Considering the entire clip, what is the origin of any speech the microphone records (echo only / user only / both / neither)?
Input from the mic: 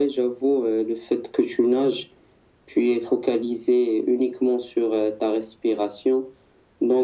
echo only